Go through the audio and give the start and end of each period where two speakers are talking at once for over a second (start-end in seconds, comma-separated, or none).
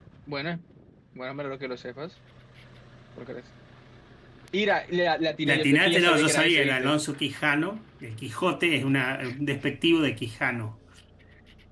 5.4-6.9